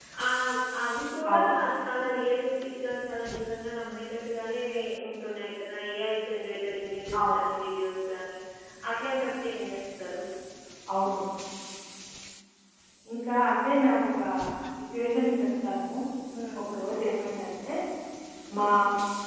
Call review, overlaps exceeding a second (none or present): none